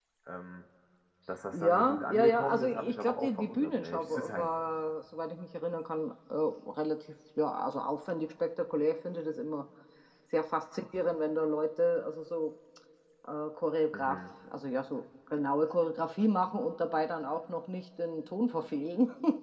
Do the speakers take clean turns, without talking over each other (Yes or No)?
No